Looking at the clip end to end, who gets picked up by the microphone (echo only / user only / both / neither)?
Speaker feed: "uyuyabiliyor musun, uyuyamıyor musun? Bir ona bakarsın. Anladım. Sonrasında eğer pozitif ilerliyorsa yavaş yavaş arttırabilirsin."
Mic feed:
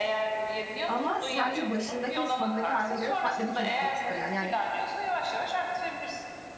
both